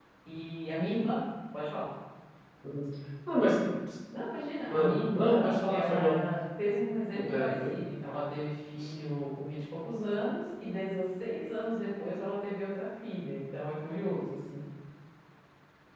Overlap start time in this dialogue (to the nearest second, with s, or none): 5 s